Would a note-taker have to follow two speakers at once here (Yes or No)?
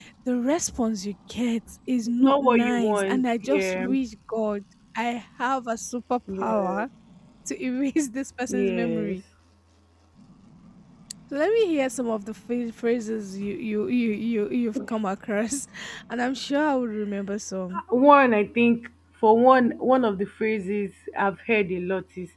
Yes